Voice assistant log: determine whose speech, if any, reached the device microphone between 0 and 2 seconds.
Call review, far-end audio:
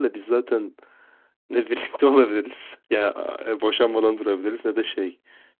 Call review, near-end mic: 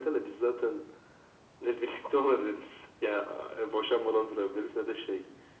echo only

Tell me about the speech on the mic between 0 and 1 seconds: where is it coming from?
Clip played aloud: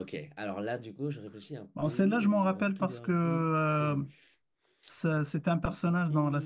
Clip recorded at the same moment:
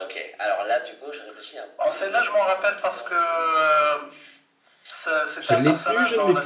echo only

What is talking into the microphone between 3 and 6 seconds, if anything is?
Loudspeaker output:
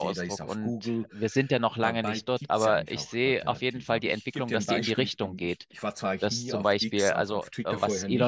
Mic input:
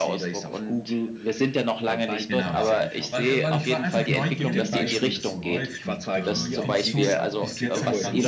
both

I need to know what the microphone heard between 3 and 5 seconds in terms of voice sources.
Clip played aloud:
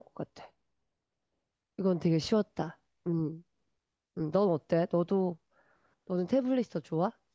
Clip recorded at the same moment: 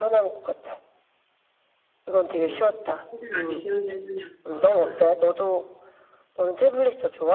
both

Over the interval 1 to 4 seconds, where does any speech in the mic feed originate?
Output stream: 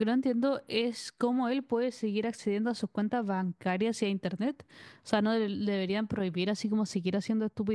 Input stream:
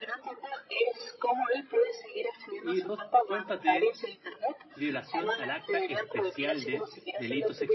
both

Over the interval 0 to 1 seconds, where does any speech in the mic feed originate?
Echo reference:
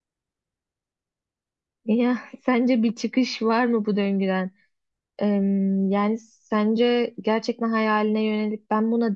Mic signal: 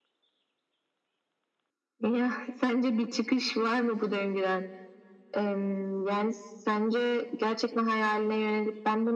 neither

